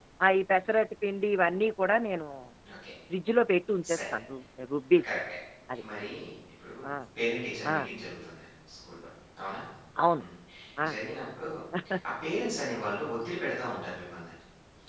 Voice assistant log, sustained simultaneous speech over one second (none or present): none